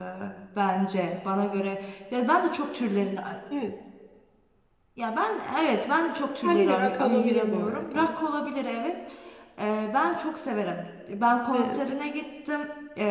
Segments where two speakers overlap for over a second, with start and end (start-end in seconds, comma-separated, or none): 6.4-8.1